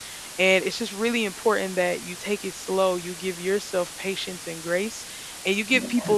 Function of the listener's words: listening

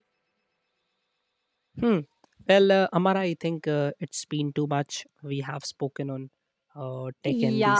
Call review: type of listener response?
taking over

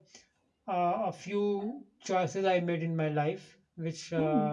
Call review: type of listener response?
listening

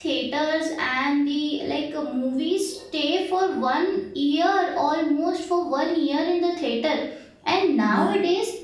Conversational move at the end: listening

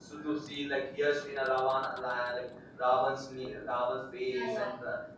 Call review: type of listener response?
listening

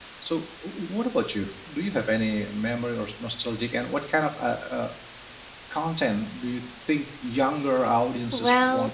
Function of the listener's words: taking over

